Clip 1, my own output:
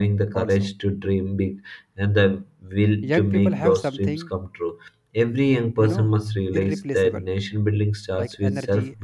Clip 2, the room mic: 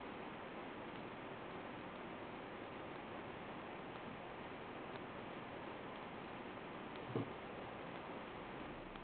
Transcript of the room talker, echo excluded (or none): none